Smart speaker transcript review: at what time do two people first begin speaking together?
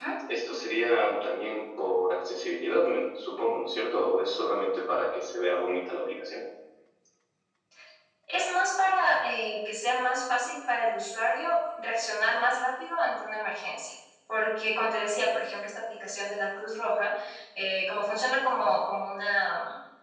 none

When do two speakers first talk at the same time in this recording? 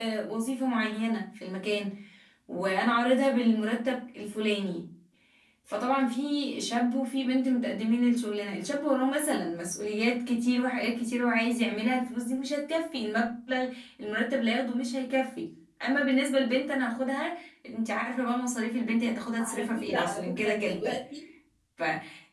19.4 s

